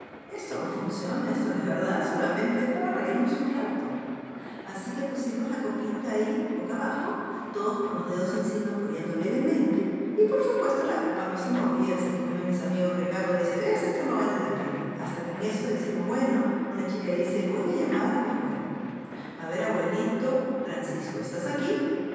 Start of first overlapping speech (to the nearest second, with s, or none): none